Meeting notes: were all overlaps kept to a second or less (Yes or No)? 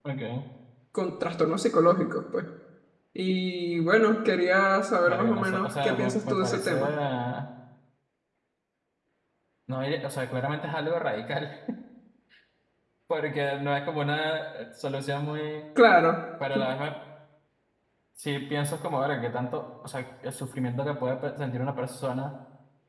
No